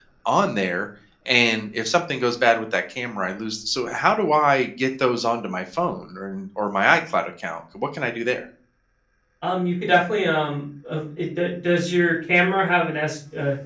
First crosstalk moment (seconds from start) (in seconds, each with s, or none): none